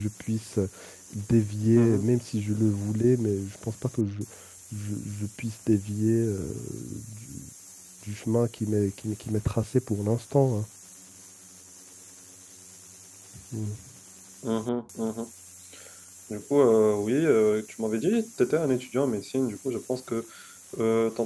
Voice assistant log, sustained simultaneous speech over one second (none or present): none